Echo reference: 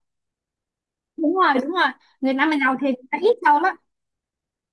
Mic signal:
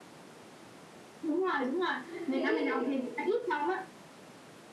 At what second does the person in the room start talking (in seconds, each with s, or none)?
2.0 s